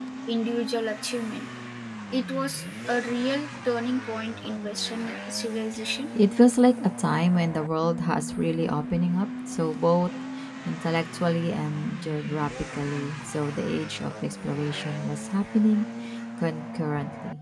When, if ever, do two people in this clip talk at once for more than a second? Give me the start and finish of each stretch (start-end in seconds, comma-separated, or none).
none